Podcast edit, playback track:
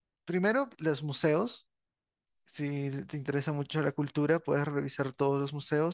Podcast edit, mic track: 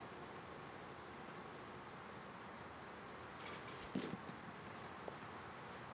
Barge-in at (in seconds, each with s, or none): none